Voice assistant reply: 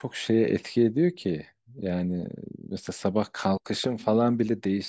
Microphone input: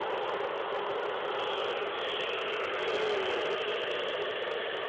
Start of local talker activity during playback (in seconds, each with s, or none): none